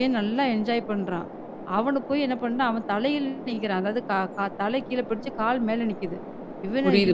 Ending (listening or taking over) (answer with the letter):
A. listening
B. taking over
A